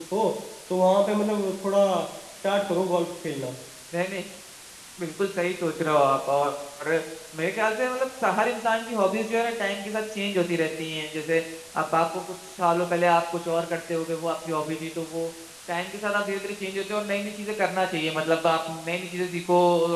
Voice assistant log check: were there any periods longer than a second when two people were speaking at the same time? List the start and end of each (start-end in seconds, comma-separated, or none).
none